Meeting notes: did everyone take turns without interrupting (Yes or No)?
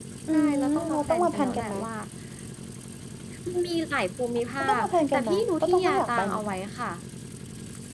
No